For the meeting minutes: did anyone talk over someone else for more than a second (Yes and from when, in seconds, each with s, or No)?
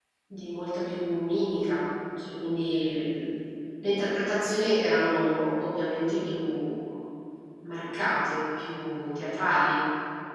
No